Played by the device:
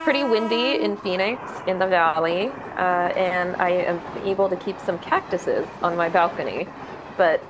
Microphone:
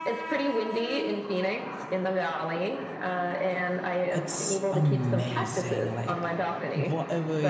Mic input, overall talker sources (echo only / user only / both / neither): both